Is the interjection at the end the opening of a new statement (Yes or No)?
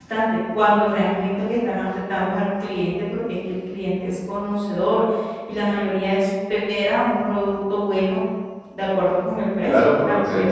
Yes